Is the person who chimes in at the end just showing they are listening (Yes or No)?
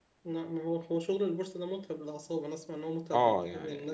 No